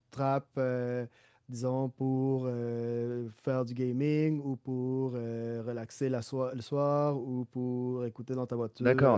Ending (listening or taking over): taking over